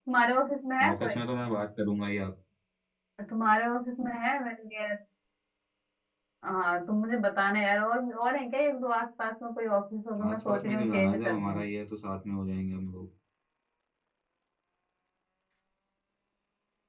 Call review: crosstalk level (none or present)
present